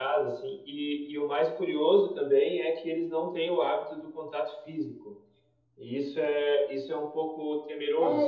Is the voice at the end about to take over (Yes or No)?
Yes